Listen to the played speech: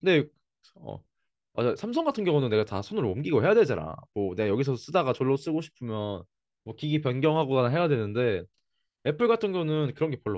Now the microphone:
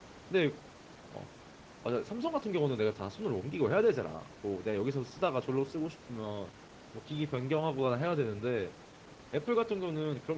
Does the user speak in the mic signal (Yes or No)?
No